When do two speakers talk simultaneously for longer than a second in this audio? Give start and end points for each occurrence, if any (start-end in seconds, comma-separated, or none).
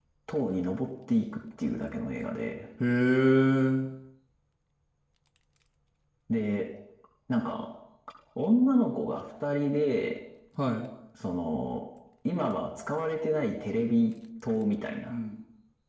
none